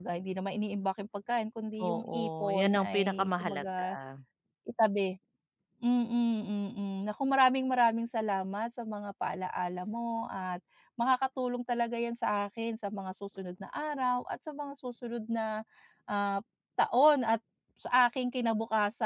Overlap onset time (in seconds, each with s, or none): 1.8 s